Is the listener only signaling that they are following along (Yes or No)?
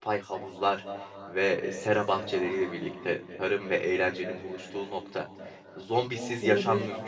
Yes